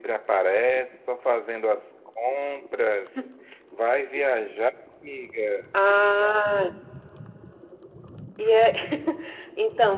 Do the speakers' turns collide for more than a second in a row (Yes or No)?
No